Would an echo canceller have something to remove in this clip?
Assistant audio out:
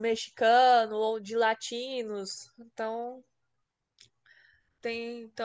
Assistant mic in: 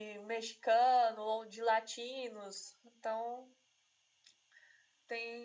Yes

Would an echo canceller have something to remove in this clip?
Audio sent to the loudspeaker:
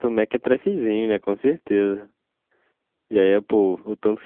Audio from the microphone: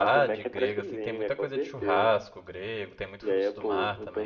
Yes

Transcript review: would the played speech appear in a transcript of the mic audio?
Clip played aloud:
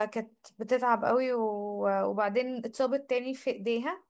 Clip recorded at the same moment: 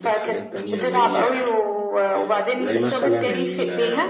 Yes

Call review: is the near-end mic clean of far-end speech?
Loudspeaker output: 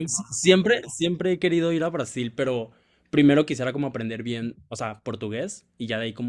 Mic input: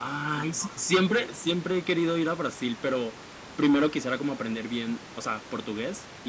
No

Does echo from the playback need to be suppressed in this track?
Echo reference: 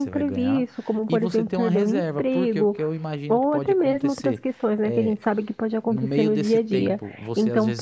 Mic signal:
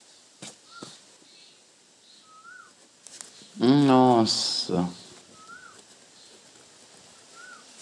No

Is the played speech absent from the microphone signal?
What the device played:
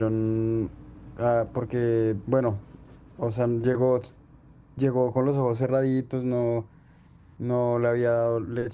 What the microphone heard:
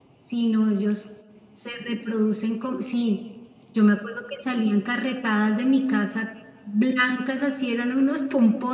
Yes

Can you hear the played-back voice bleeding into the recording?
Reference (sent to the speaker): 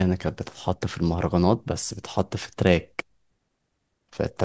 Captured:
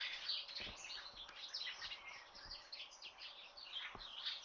No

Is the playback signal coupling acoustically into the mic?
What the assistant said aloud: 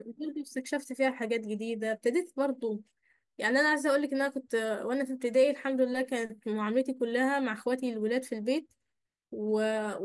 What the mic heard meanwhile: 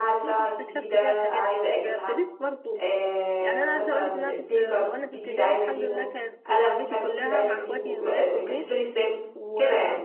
Yes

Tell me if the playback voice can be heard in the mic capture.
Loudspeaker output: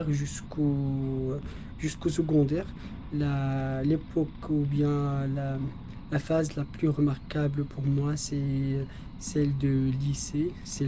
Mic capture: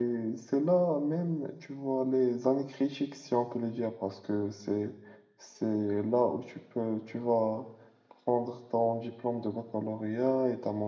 No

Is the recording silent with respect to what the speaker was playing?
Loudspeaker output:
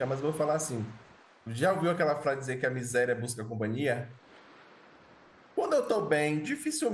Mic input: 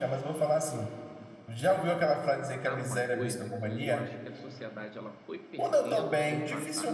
No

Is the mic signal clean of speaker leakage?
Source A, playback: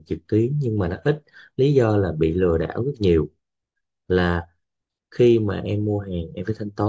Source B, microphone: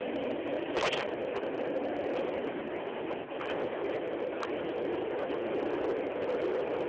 Yes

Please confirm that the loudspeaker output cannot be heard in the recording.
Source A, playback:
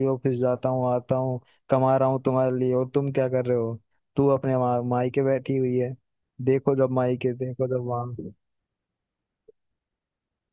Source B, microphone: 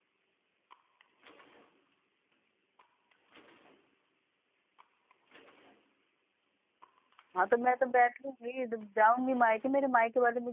Yes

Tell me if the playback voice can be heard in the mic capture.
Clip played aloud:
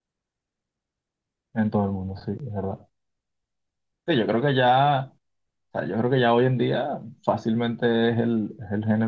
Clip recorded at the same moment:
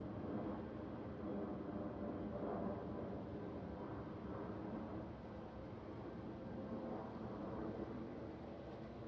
No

